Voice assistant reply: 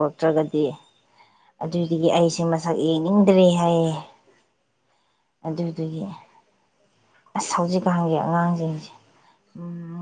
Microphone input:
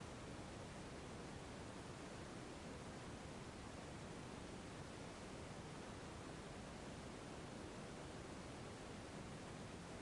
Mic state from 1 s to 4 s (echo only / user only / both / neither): neither